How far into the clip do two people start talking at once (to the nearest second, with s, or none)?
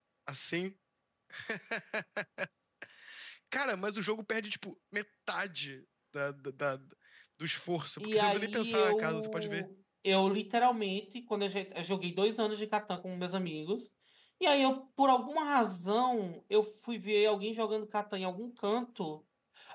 8 s